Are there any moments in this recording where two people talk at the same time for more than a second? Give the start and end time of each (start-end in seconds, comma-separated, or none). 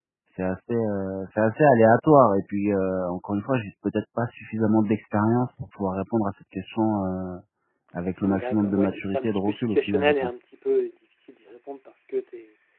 8.2-10.4